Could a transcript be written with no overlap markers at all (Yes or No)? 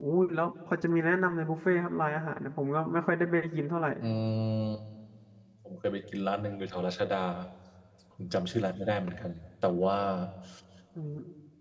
Yes